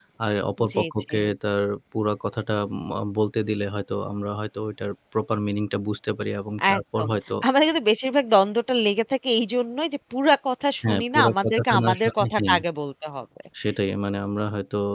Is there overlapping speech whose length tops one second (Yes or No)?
Yes